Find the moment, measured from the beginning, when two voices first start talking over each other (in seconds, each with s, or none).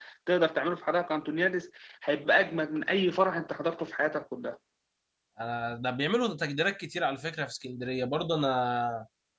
none